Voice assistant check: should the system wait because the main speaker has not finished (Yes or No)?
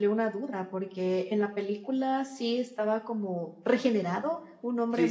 No